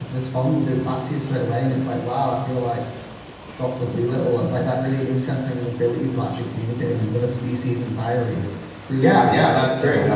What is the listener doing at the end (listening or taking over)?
taking over